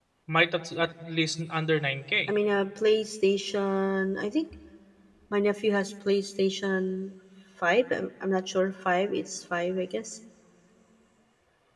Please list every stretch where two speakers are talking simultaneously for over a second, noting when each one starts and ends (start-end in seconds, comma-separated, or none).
none